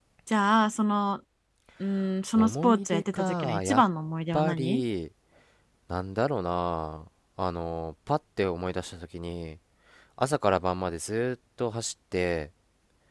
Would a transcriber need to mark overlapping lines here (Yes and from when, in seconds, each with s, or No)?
Yes, from 2.4 s